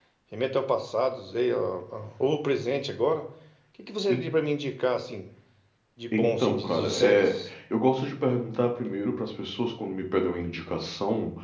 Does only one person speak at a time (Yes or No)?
No